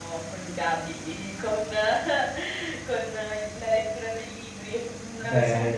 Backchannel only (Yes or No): Yes